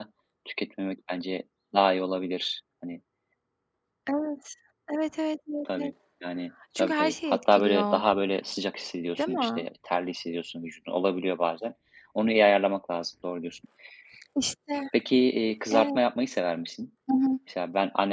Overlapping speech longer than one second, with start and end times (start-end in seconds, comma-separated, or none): 6.8-8.0